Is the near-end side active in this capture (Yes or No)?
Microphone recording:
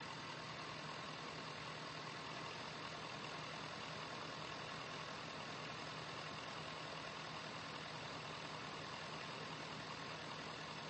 No